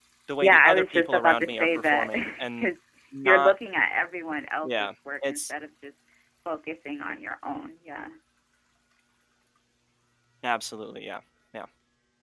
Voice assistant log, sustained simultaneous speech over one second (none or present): present